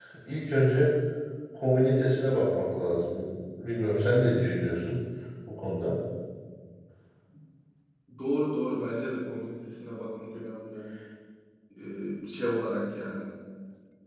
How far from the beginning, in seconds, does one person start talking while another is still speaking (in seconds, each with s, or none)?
none